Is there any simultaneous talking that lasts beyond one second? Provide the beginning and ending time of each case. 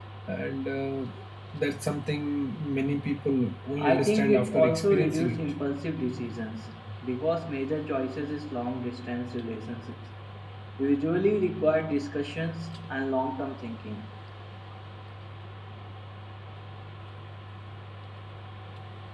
3.8-5.4

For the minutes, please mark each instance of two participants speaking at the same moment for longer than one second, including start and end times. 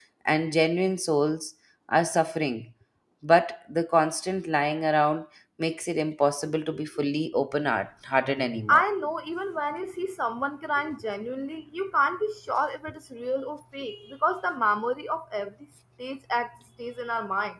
none

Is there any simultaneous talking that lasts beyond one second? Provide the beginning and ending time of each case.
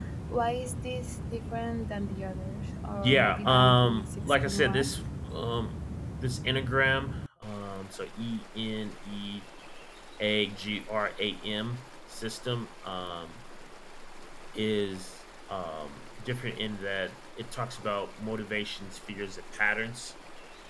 3.0-4.9

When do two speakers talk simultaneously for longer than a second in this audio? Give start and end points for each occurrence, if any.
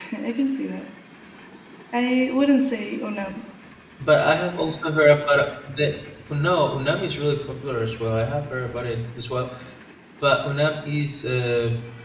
none

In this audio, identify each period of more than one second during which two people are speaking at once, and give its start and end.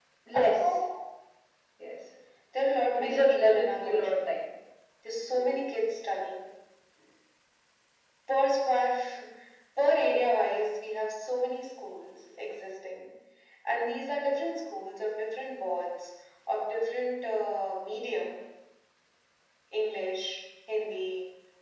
2.9-4.3

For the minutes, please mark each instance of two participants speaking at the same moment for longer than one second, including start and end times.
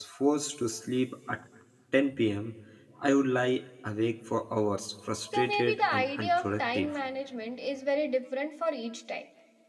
5.3-6.9

